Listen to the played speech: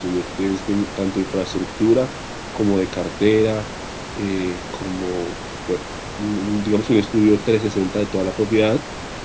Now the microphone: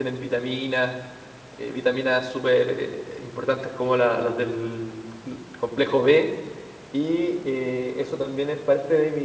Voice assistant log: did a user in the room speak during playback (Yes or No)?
Yes